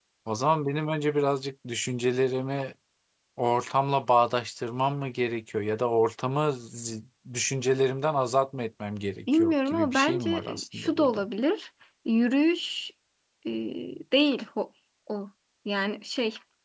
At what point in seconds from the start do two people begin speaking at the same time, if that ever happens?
9.3 s

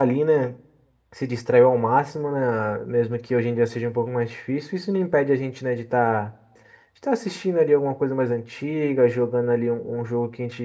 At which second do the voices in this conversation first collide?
none

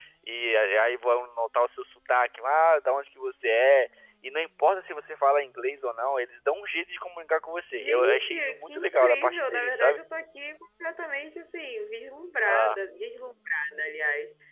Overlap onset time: 7.7 s

